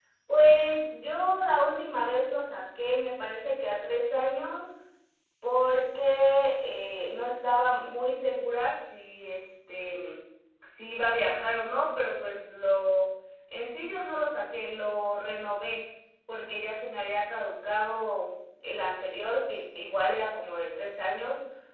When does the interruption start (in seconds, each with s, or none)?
none